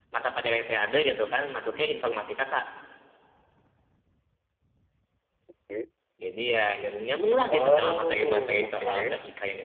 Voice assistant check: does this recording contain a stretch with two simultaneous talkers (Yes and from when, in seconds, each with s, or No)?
Yes, from 7.5 s